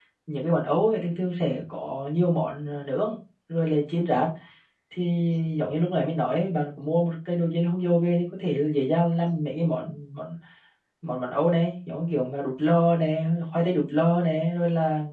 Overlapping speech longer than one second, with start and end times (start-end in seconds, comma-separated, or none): none